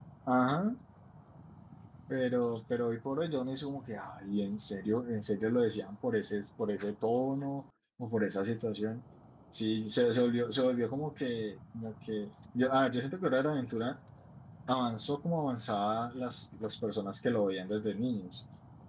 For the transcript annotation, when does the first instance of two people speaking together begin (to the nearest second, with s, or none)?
none